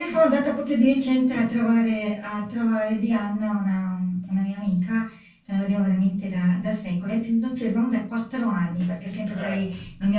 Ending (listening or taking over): listening